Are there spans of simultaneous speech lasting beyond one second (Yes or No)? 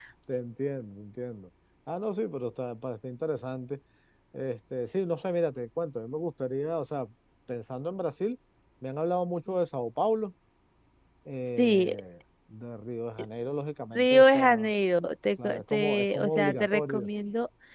Yes